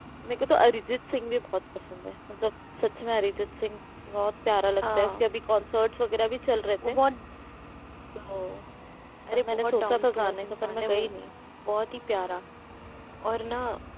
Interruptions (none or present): present